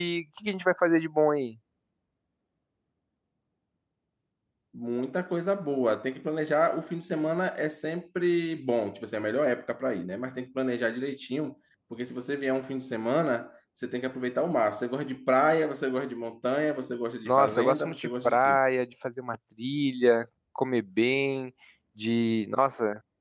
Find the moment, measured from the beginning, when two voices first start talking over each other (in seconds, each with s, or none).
17.2 s